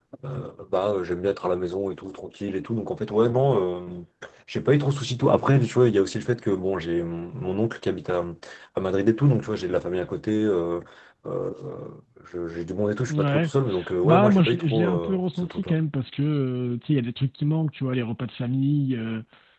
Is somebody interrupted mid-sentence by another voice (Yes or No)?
Yes